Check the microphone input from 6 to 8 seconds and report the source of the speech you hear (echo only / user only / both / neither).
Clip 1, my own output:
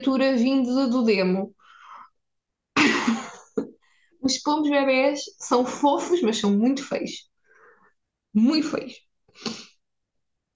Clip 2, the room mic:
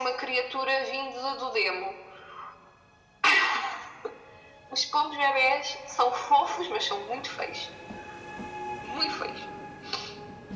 echo only